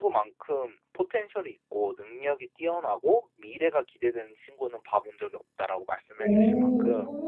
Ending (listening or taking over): taking over